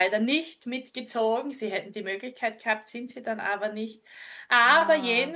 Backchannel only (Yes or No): Yes